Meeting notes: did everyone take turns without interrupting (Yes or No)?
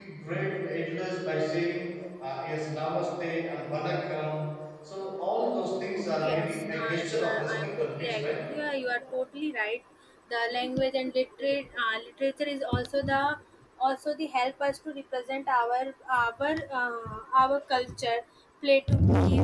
No